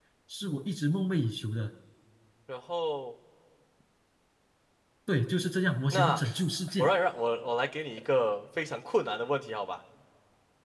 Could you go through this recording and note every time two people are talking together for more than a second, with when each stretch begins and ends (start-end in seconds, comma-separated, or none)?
none